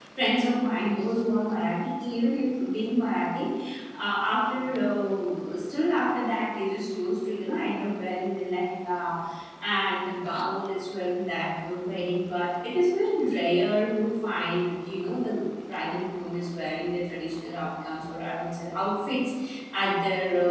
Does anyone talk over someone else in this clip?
No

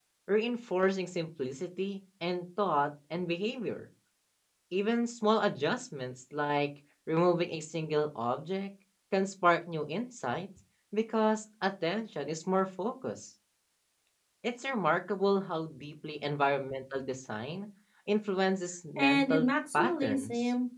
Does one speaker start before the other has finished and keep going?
Yes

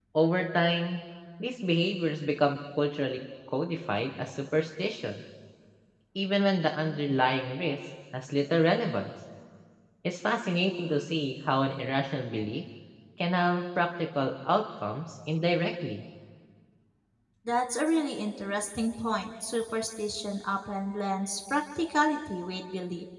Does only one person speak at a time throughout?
Yes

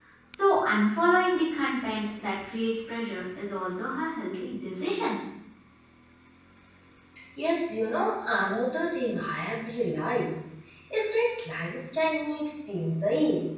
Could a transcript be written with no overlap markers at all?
Yes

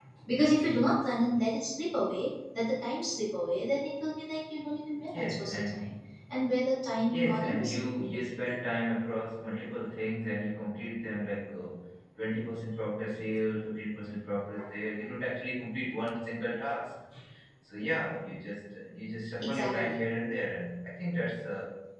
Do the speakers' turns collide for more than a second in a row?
Yes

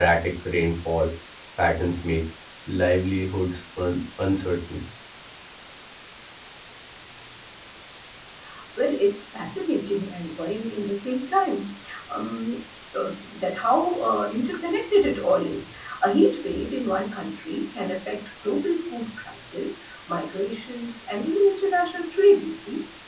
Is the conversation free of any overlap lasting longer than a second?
Yes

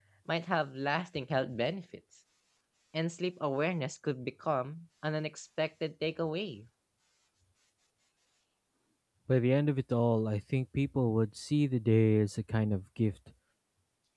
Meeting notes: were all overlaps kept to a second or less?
Yes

